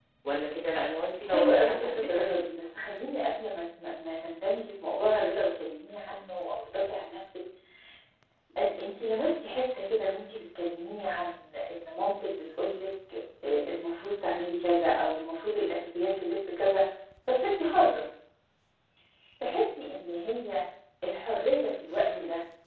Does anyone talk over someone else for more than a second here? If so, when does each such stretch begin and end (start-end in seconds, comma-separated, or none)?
1.3-2.5